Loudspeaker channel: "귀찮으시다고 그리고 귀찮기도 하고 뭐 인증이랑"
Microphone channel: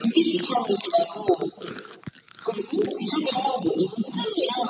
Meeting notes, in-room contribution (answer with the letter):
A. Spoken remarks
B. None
B